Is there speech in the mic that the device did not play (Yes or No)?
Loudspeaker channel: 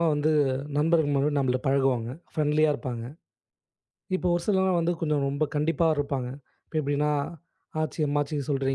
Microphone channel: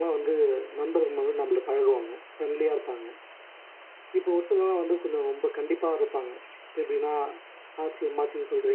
No